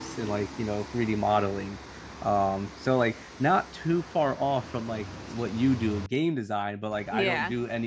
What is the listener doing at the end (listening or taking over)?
listening